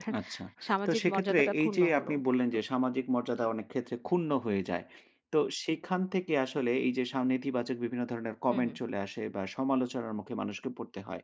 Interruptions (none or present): present